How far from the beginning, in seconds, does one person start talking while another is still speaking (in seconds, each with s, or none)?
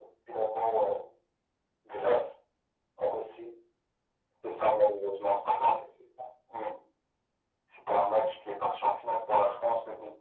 none